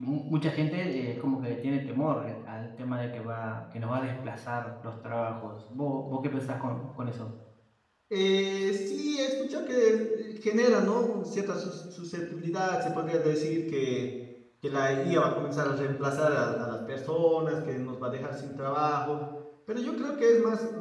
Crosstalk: none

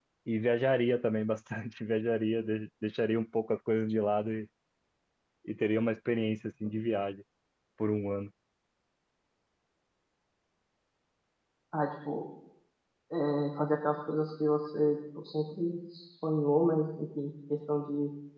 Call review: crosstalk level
none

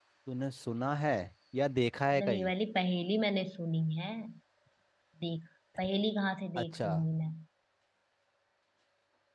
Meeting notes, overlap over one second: none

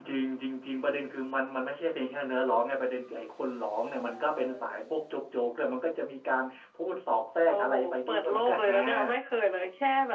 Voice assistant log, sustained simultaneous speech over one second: present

